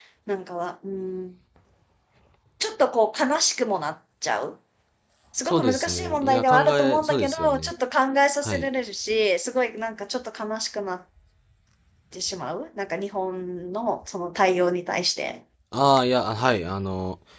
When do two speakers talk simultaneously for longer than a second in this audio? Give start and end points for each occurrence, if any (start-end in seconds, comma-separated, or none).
5.4-7.7